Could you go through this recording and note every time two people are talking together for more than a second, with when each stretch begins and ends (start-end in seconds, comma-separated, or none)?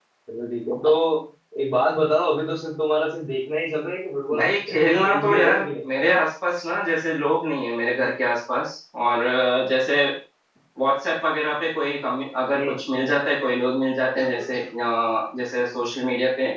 4.3-5.7